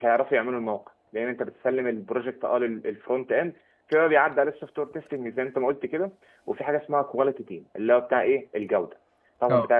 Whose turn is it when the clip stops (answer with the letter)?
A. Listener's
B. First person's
B